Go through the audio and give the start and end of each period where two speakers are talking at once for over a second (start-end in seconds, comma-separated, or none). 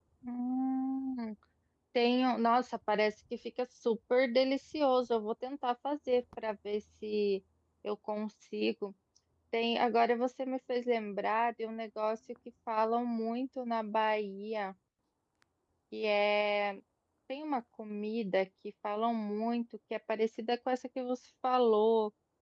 none